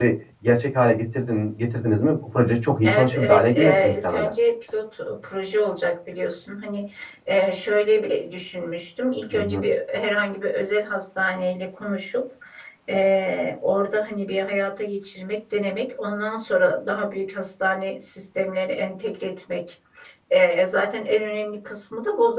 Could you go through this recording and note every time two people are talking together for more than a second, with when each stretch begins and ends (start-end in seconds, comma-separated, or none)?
2.8-4.3